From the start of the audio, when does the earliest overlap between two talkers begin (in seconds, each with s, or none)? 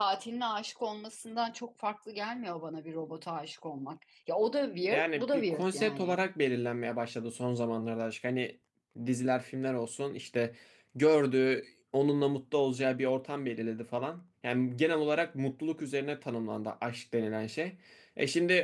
4.9 s